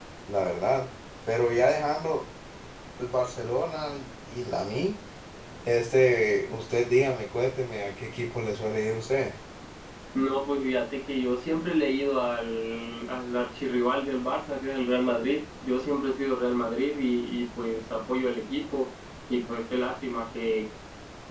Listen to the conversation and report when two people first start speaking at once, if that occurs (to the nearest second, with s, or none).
none